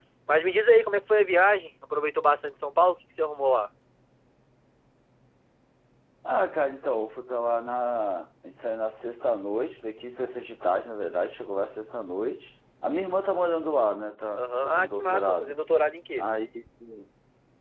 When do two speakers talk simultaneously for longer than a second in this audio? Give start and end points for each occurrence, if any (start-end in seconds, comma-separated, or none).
14.3-15.6